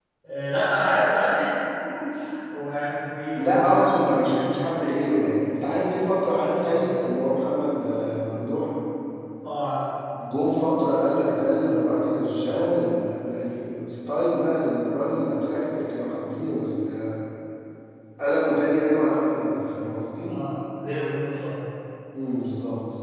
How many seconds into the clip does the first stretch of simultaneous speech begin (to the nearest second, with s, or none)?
3 s